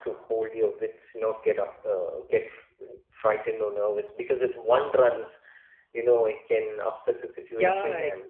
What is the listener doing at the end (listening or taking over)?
taking over